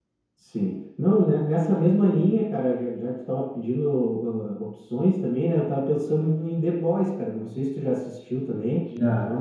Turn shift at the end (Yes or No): No